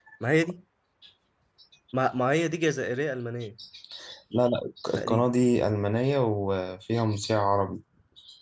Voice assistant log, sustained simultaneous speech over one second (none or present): none